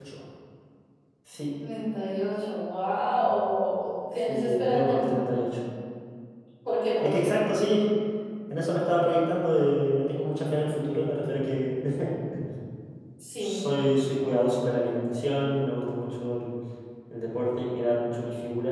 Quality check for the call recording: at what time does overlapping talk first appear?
4.3 s

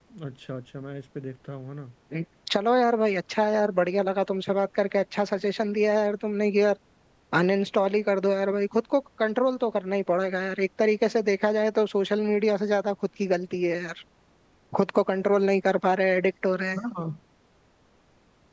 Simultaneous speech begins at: none

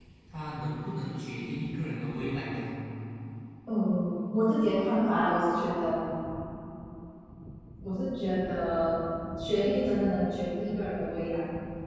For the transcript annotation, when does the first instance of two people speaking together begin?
none

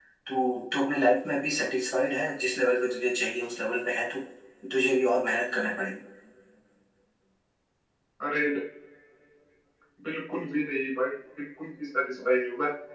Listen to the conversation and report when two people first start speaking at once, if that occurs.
none

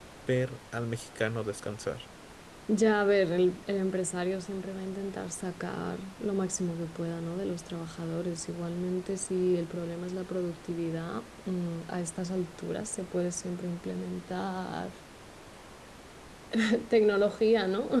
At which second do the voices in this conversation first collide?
none

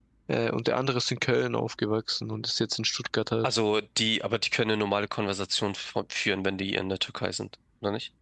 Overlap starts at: none

